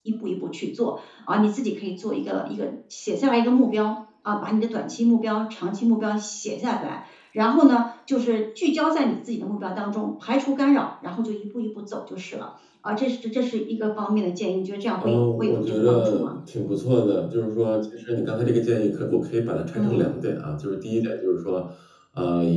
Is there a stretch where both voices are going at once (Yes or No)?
Yes